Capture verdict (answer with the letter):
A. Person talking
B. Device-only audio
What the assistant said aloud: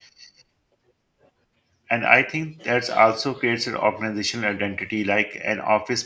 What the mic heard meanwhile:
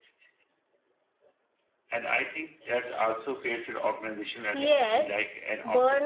A